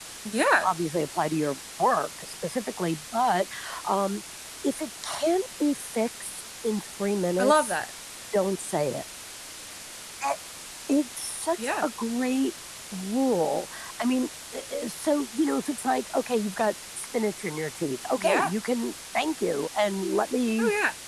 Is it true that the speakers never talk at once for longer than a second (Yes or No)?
Yes